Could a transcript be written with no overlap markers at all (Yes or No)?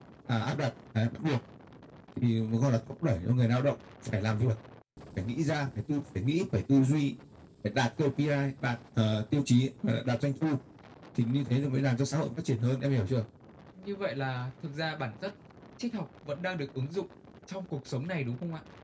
Yes